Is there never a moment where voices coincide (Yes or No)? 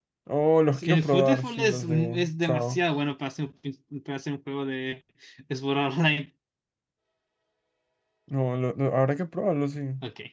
No